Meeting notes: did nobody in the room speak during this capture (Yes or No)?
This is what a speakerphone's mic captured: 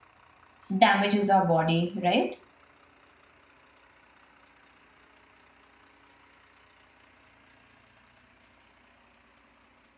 No